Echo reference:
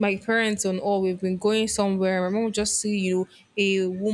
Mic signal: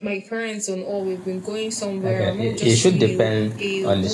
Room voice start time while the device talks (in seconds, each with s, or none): 2.0 s